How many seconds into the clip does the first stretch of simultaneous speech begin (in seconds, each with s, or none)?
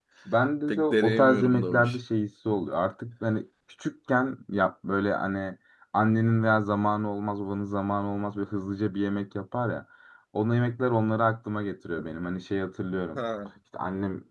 0.7 s